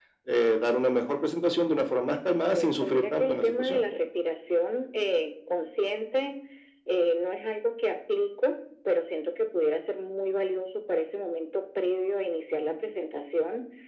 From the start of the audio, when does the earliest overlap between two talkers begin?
2 s

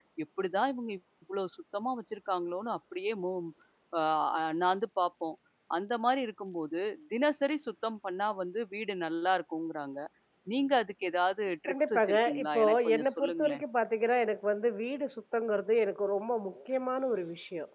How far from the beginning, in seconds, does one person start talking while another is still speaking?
12 s

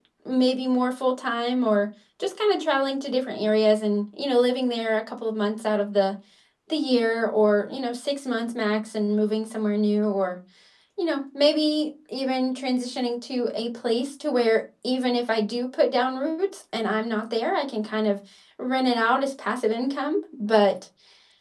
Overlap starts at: none

